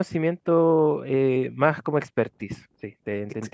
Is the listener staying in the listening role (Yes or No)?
No